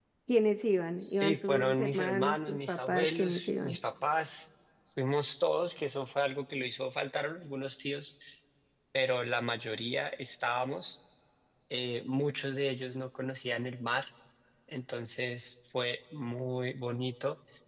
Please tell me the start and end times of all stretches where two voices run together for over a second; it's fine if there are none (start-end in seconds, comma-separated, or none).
1.0-3.8